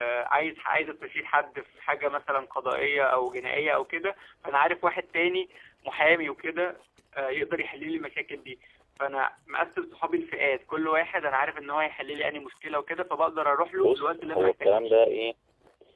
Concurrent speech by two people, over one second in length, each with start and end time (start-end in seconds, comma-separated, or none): 13.8-15.0